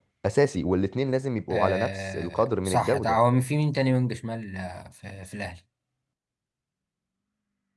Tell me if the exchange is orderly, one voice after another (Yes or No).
No